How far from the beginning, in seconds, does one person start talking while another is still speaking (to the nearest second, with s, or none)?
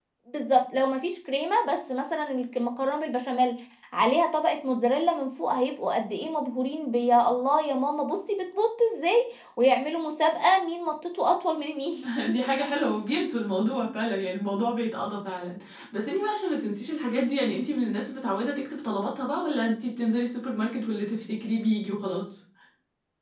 none